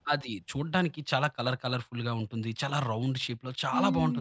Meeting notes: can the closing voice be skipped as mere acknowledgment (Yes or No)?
No